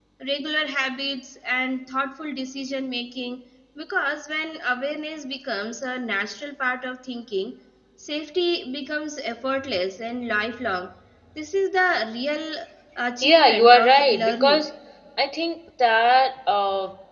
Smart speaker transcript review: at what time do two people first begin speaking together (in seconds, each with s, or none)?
13.2 s